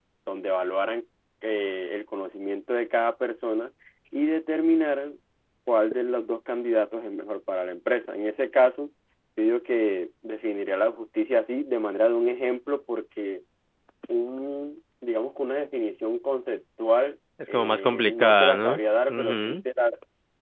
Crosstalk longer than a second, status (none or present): present